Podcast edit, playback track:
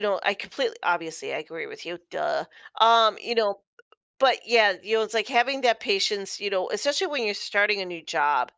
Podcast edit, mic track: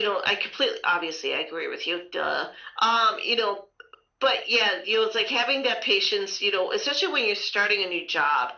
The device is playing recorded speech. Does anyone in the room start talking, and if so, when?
none

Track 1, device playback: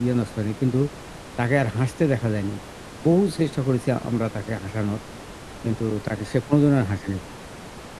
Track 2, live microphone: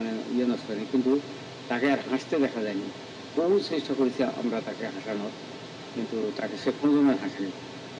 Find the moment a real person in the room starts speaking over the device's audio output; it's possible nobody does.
none

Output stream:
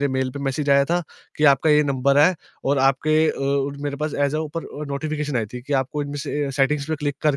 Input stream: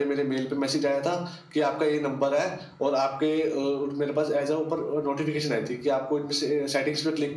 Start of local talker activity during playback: none

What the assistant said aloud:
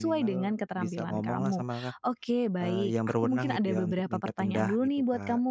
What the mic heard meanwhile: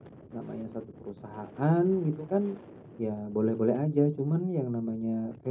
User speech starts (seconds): 0 s

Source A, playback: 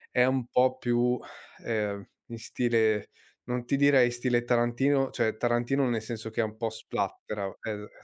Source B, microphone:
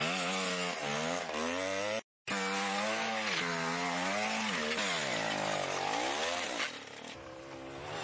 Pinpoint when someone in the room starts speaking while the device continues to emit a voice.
none

